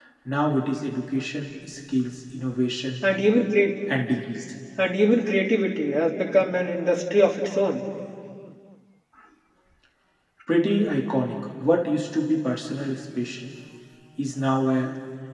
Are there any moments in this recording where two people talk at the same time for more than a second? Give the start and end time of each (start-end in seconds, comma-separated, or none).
none